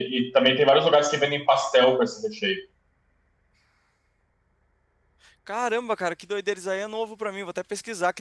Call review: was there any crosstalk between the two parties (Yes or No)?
No